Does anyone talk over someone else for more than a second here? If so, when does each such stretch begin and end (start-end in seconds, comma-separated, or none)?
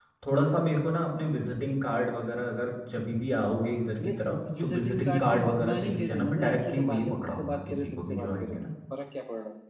4.6-8.6